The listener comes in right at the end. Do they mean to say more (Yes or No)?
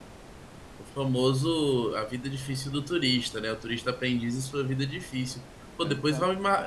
No